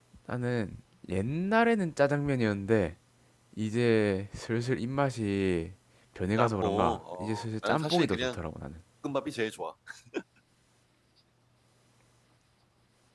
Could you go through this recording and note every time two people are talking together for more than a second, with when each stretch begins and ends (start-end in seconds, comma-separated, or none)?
6.4-8.4